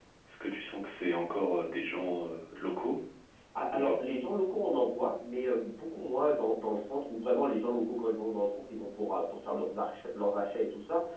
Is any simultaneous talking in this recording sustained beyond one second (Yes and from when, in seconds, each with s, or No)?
No